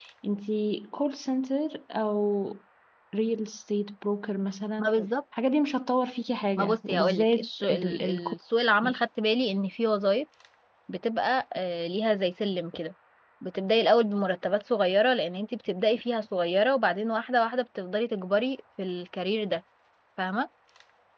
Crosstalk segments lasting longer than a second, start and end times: 6.6-8.2

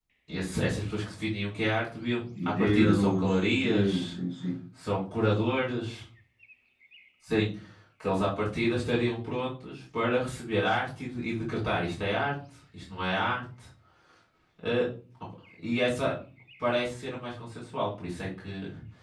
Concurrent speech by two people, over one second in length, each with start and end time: 2.6-4.1

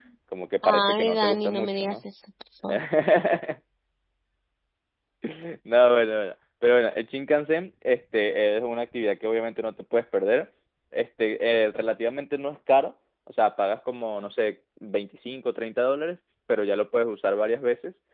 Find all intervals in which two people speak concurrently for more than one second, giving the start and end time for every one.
0.6-2.0

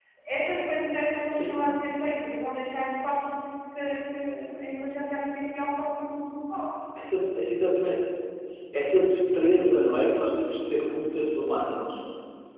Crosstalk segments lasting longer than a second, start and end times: none

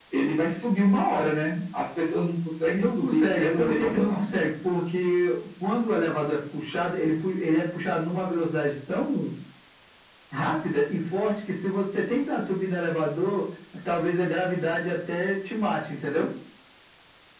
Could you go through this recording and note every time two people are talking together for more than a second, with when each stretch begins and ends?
2.7-4.4

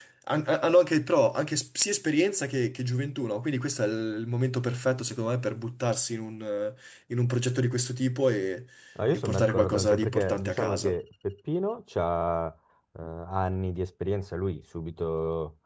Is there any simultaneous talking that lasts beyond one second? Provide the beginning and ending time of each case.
9.1-10.9

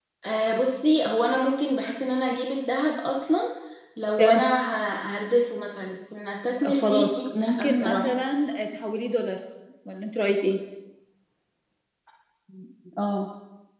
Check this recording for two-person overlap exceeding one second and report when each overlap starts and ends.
6.6-8.1

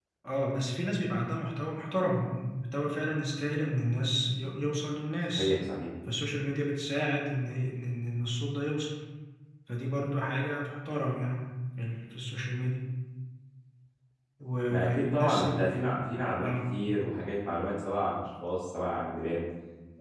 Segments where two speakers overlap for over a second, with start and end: 14.7-16.0

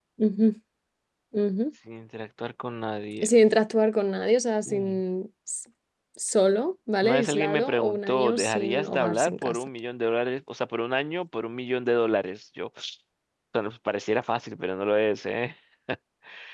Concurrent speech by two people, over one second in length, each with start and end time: 7.0-9.7

